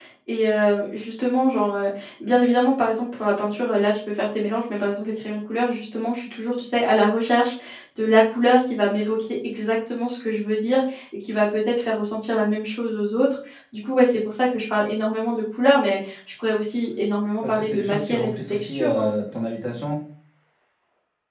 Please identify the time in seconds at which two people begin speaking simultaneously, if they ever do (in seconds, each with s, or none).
17.4 s